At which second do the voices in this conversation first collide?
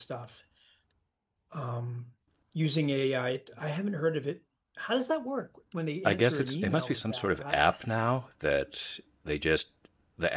6.0 s

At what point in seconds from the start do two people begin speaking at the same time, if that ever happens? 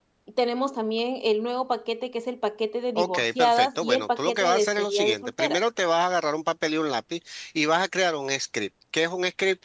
3.0 s

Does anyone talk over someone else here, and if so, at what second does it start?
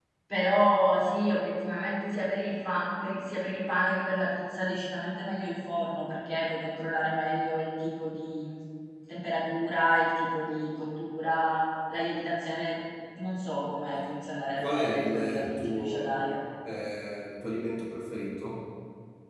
14.6 s

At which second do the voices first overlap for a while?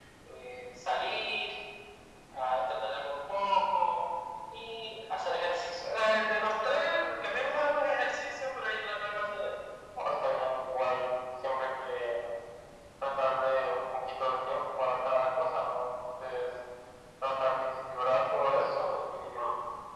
none

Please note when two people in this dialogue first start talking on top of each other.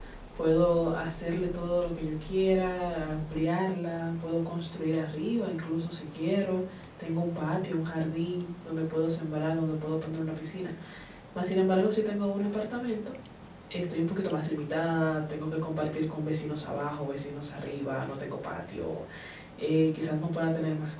none

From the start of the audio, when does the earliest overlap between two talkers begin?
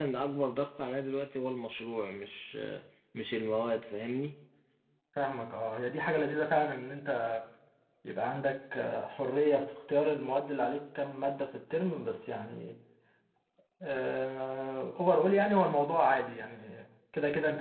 none

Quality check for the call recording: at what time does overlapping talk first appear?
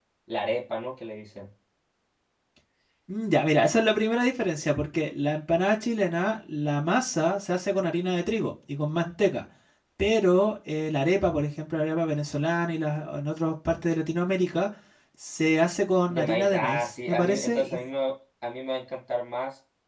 16.1 s

